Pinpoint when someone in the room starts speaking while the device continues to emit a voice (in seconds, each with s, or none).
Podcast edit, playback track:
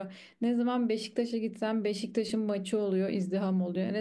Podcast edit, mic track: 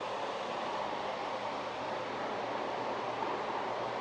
none